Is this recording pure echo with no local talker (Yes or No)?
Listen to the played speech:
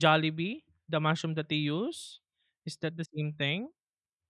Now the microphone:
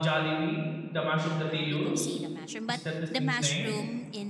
No